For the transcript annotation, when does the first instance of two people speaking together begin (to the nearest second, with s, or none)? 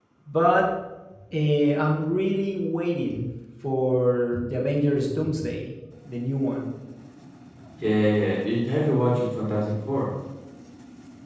none